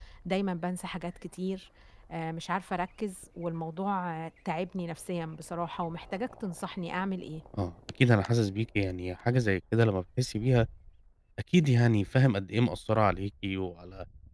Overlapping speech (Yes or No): No